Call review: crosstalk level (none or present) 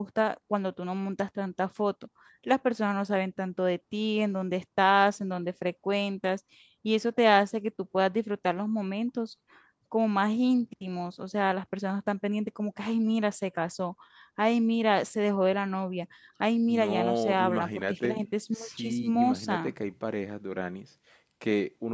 present